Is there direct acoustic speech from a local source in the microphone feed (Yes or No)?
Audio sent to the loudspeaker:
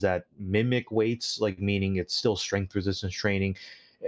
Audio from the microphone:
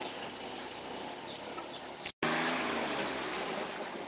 No